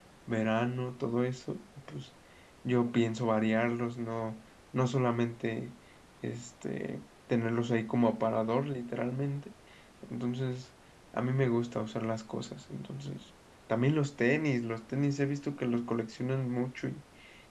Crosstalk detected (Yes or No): No